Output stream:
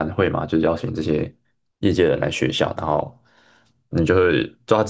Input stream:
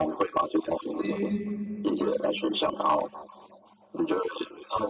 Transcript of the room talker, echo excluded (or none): 嗯